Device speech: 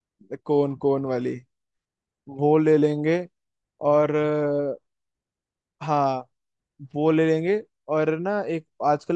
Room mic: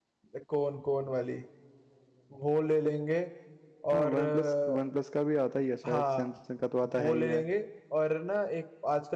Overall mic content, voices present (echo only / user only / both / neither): both